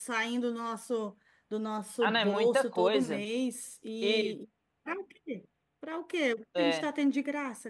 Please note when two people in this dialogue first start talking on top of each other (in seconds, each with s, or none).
2.0 s